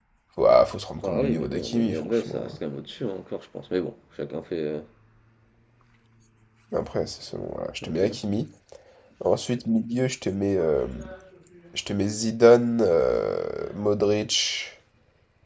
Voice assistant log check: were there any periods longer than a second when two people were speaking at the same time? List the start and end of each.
1.0-2.4

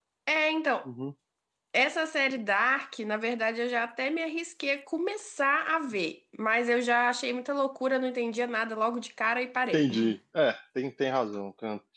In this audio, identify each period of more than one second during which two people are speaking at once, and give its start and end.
none

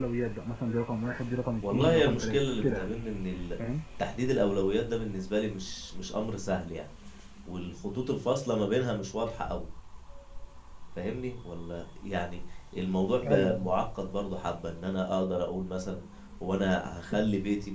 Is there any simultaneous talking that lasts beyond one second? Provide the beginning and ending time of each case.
1.6-2.9

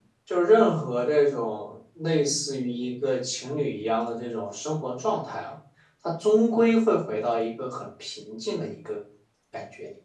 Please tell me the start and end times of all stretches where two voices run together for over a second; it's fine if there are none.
none

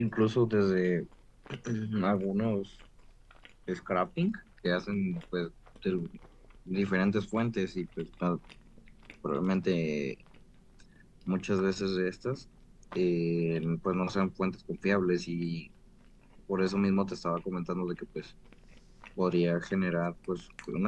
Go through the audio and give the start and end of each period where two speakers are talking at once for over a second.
none

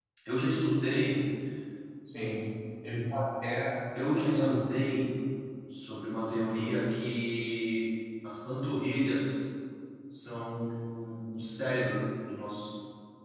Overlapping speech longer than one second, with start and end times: none

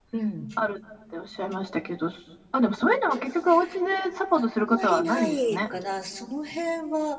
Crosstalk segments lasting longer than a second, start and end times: 4.3-5.7

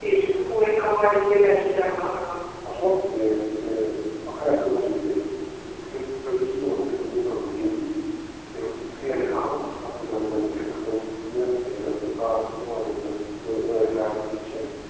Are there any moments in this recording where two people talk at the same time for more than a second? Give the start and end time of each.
none

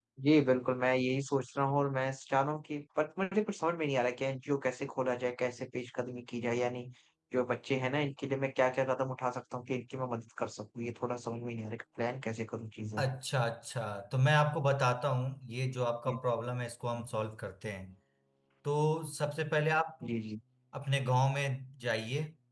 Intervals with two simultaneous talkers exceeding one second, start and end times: none

